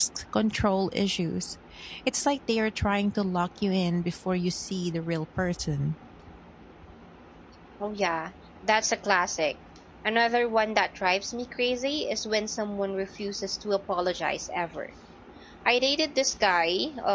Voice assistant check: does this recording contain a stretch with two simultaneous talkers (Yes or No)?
No